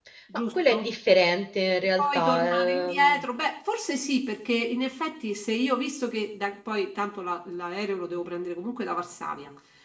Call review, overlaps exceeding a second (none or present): present